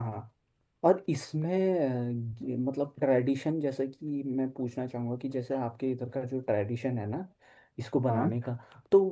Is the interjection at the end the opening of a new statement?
No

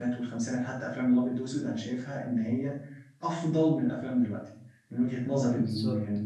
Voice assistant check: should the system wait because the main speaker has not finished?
No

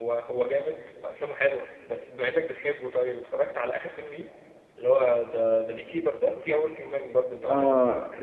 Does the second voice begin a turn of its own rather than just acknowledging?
Yes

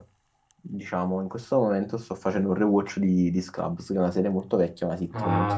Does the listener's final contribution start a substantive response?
Yes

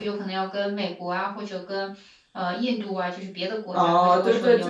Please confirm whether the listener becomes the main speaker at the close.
Yes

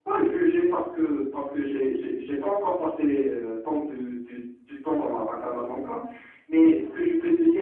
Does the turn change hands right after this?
No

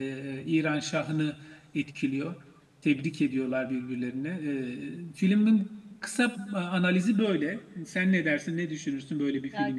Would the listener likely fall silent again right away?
No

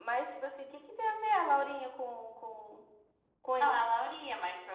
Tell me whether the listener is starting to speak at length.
Yes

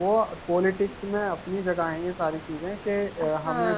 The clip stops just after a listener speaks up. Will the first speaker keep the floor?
No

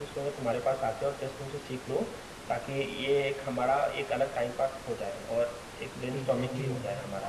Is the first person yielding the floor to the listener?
Yes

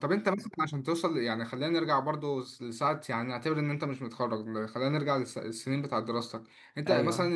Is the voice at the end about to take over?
No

